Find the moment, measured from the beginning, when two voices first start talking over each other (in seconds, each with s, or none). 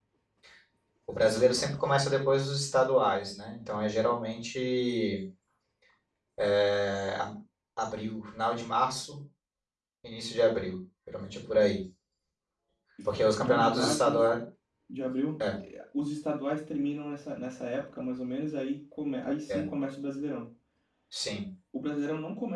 13.1 s